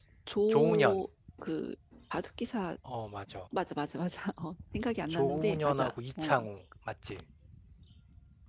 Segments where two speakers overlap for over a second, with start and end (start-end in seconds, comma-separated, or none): 5.1-6.3